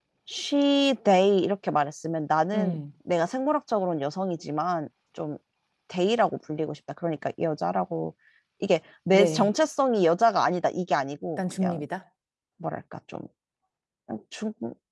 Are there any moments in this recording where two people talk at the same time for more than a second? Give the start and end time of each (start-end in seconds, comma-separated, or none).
none